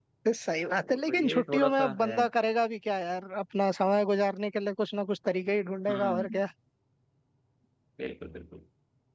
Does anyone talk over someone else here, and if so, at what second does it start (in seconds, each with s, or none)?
0.8 s